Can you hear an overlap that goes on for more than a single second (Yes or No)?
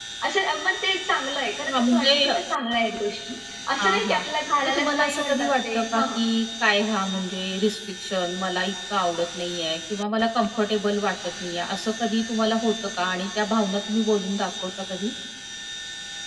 Yes